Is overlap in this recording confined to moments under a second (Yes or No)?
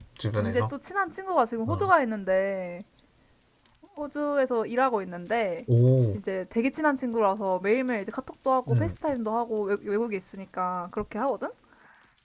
Yes